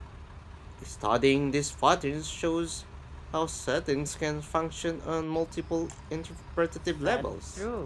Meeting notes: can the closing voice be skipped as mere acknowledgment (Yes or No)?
No